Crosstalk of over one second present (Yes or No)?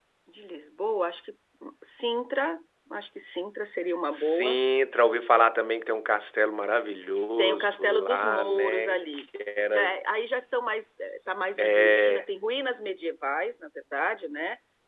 Yes